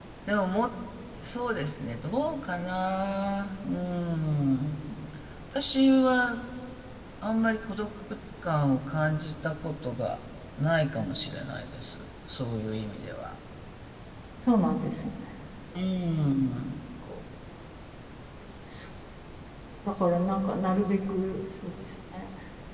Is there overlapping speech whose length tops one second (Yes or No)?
No